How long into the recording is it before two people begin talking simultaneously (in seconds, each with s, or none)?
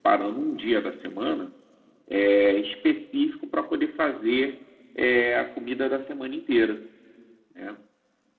none